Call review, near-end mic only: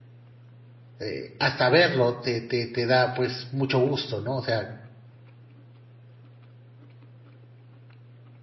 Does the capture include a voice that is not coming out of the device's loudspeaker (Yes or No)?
Yes